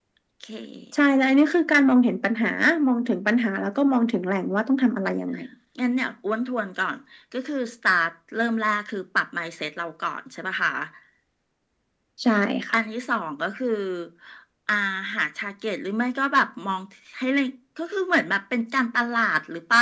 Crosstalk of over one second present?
No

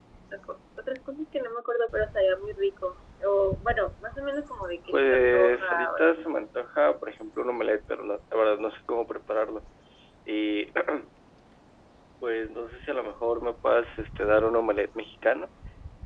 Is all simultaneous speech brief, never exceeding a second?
No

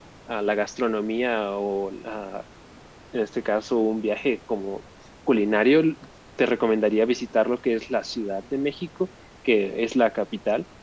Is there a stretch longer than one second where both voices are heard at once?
No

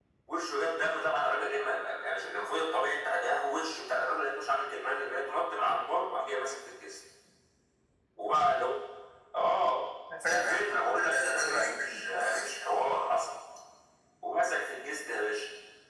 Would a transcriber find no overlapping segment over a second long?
No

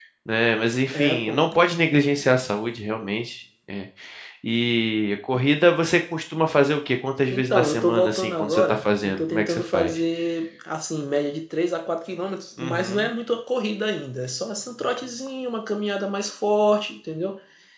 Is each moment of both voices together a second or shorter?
No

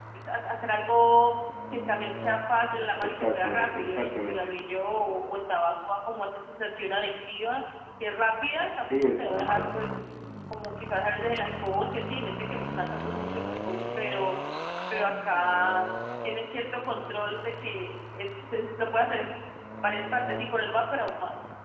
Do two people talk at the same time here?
Yes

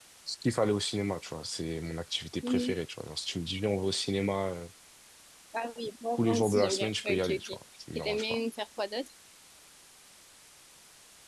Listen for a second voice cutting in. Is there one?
Yes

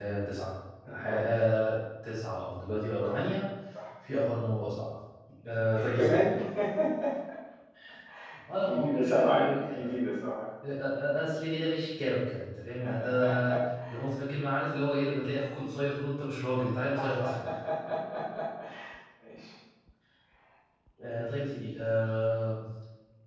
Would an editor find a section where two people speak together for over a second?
Yes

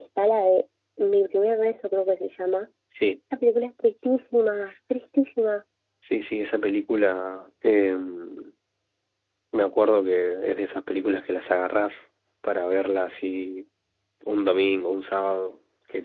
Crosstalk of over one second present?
No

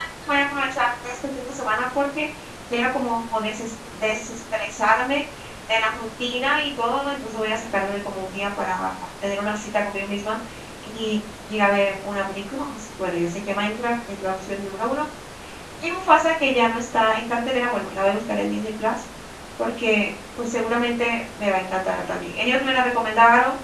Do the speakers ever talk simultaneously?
No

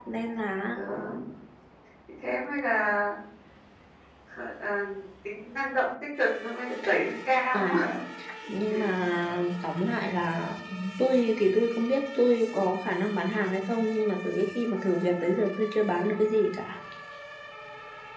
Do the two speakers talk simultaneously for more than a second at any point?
No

